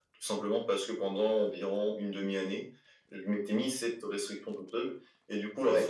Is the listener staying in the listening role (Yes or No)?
Yes